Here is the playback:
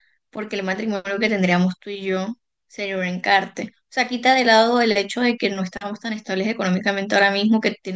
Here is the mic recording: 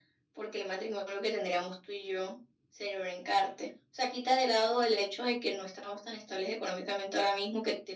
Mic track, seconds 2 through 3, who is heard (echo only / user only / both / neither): echo only